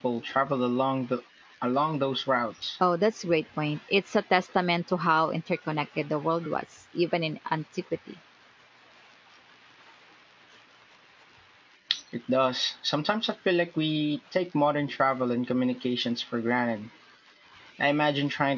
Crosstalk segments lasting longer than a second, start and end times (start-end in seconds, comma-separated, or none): none